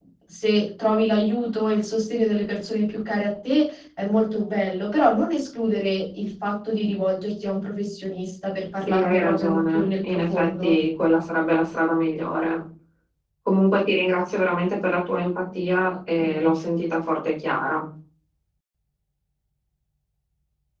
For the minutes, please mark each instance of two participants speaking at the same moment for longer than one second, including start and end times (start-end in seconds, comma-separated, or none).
8.9-10.8